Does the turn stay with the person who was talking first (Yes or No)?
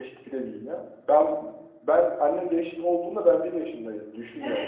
No